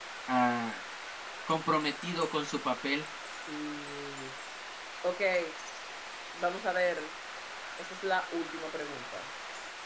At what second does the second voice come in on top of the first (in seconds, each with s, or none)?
none